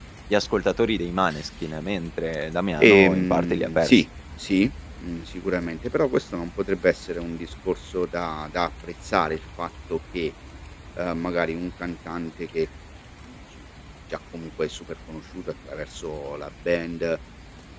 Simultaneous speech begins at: 2.8 s

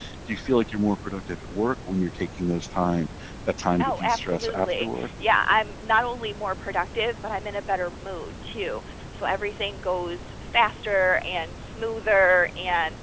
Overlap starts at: 3.8 s

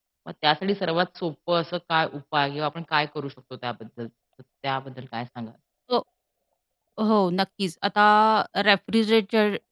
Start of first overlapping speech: none

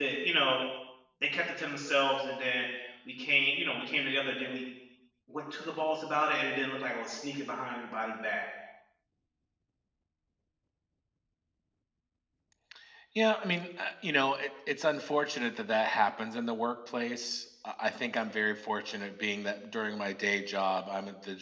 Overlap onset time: none

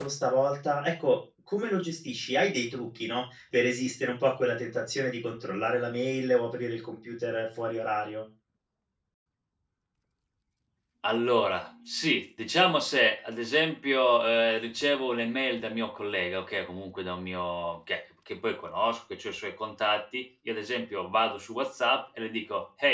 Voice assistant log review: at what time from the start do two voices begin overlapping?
none

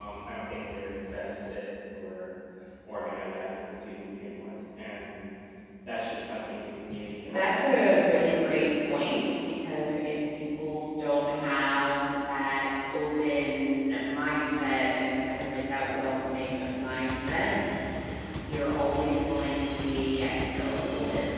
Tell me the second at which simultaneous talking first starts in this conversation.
7.2 s

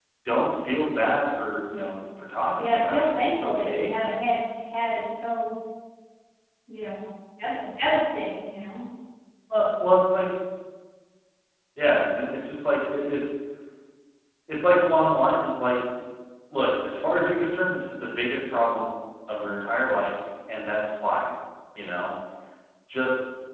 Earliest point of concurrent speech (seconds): 2.6 s

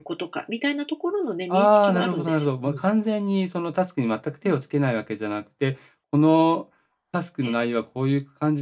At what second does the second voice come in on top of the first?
1.5 s

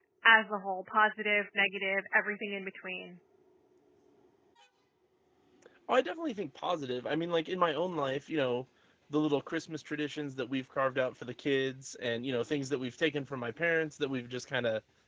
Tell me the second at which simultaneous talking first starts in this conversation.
none

